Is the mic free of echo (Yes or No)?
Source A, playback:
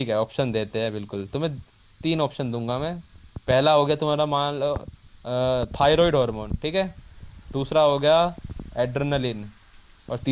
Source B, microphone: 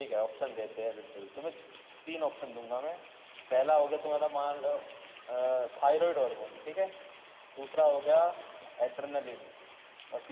No